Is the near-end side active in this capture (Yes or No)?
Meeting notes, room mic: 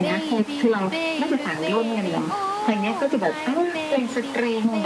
Yes